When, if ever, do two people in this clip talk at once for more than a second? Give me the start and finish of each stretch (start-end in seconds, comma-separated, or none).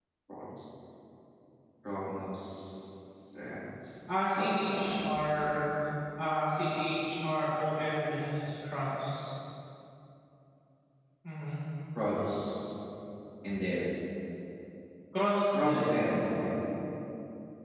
4.4-5.6